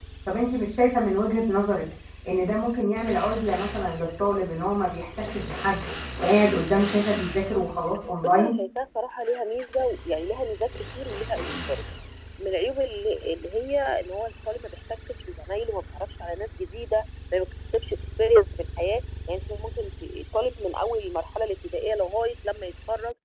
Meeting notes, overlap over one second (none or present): none